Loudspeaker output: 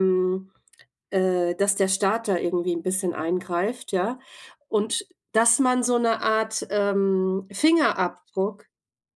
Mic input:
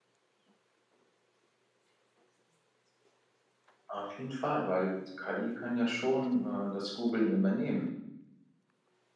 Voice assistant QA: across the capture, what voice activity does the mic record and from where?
user only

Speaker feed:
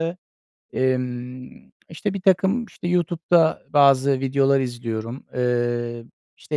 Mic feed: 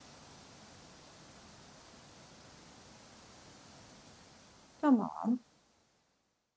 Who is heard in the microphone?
user only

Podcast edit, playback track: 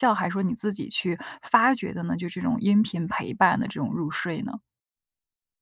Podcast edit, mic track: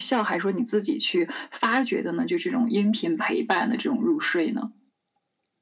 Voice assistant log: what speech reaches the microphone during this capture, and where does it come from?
echo only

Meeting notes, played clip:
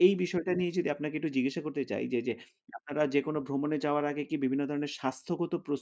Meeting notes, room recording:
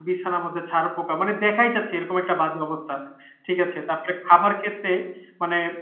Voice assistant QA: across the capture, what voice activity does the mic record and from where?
user only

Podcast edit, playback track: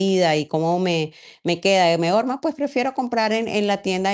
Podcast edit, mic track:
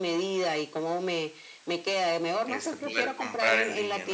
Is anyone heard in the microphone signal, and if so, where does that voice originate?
both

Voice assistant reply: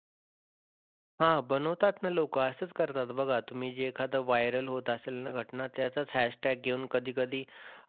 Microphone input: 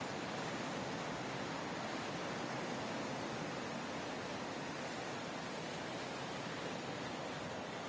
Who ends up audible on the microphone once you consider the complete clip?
neither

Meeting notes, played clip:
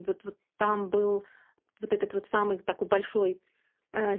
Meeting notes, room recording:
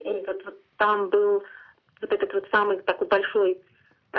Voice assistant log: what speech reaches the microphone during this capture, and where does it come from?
echo only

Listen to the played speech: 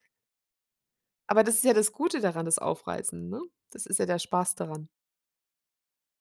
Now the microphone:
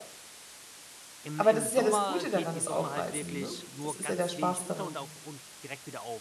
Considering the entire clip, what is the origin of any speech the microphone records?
both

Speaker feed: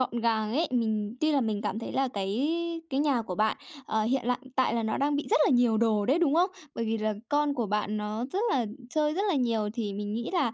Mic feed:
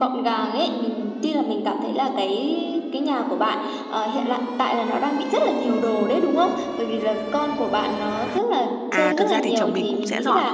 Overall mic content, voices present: both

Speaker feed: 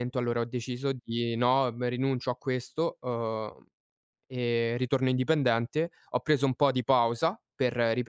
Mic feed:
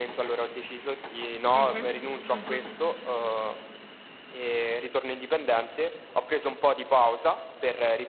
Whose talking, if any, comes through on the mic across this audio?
both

